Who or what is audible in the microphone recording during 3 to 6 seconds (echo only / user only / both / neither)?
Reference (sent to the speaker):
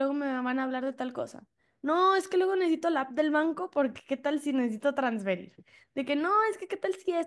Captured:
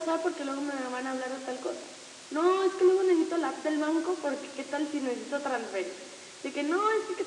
echo only